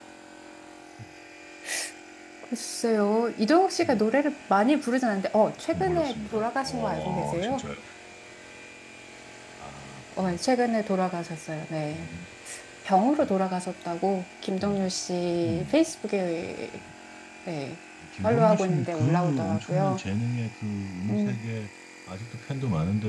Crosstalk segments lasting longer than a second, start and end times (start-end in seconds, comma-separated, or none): 5.7-7.7, 18.2-20.0